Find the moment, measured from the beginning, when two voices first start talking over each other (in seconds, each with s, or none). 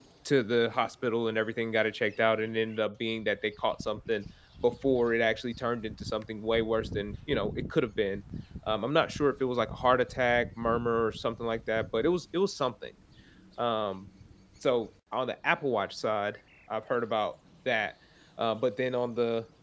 none